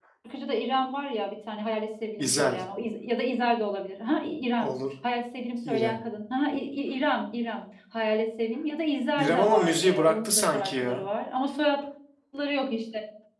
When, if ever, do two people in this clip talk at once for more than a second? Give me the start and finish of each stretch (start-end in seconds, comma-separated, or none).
9.2-11.0